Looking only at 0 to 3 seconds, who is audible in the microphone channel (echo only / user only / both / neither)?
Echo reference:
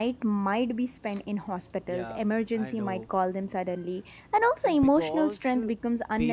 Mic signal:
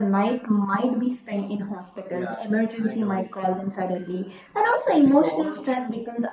echo only